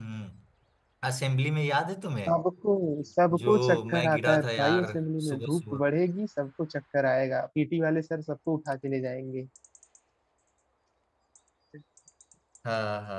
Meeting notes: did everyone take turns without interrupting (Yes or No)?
No